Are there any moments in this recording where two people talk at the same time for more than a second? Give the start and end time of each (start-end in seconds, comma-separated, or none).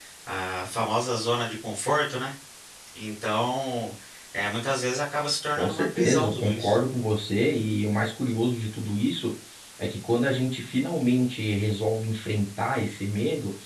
5.6-6.8